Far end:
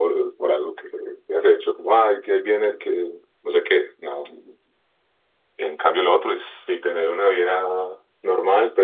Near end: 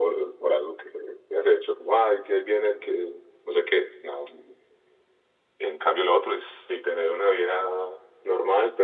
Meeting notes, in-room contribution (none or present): none